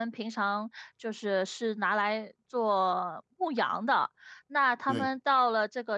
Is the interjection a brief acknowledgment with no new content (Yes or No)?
Yes